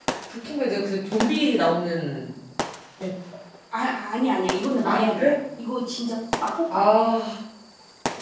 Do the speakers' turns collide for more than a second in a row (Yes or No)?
No